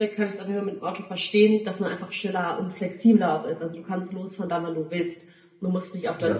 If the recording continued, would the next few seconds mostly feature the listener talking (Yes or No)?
No